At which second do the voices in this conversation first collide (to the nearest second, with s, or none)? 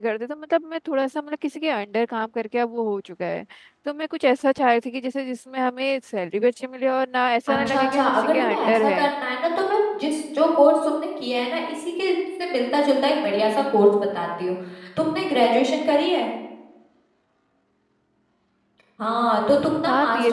8 s